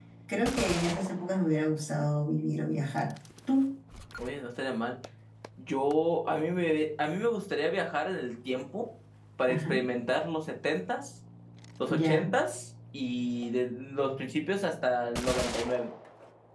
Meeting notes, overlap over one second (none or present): none